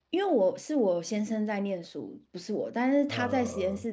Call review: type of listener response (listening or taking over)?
listening